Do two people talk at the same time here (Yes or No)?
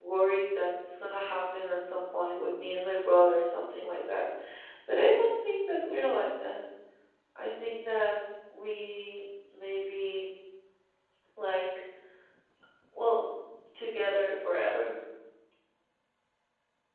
No